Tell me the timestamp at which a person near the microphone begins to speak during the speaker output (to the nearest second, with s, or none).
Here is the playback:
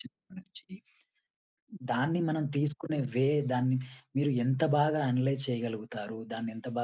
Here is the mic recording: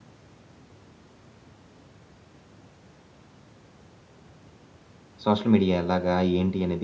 5 s